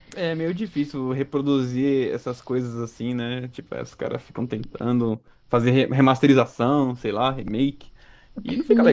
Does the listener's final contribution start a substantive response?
Yes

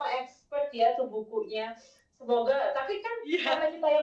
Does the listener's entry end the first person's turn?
No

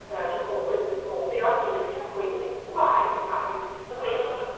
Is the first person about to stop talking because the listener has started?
No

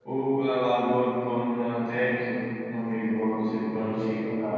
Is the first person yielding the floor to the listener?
No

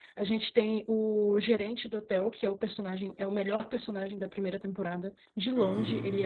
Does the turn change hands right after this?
No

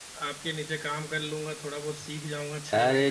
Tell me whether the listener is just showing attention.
No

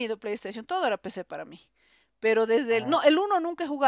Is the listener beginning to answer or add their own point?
No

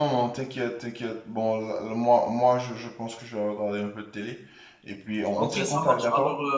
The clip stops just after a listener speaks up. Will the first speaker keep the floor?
No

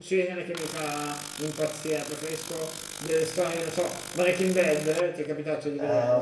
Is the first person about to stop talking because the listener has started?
Yes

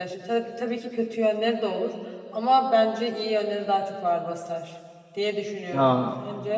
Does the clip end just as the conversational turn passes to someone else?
Yes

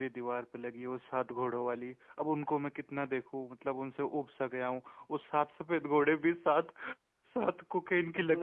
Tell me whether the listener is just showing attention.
No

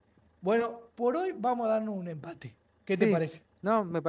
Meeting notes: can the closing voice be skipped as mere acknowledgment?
No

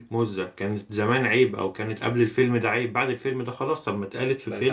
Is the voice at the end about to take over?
No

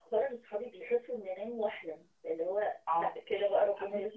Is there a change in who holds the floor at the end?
Yes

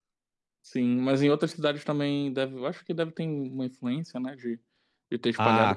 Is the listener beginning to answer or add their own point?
Yes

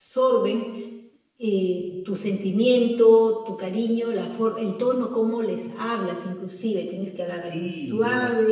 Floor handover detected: Yes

